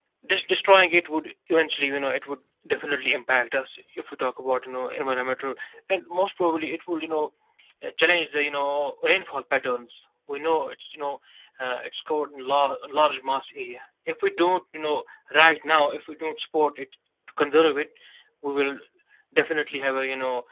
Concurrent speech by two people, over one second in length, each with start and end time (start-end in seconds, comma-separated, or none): none